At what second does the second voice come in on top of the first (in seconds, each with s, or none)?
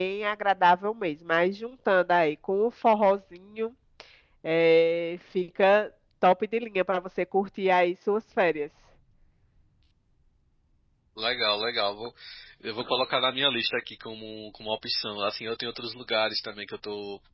none